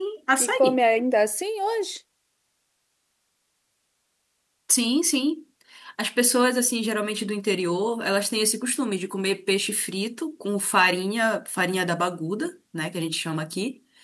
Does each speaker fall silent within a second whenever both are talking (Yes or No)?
Yes